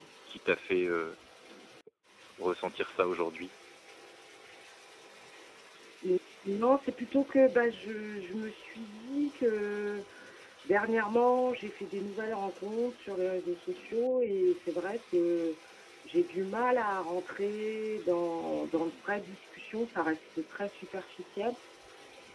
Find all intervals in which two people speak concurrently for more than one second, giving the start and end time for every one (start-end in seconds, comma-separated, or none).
none